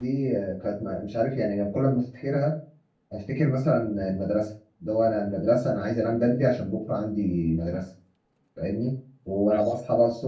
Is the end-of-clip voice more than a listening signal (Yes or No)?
No